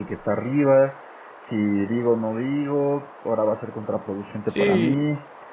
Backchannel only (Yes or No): Yes